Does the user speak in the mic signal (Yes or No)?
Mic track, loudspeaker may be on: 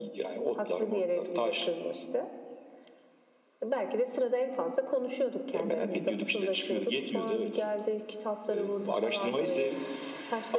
No